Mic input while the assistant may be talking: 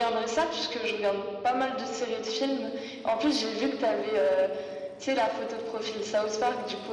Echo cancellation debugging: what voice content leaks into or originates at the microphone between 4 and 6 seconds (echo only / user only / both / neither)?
echo only